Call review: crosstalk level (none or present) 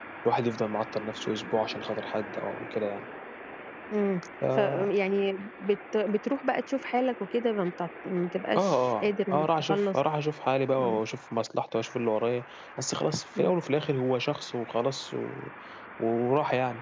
present